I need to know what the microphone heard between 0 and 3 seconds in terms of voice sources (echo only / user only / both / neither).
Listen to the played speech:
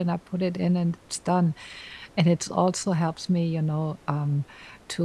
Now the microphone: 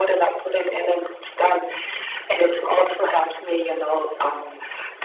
echo only